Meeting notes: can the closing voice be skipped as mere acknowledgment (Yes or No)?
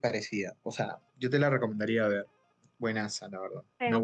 No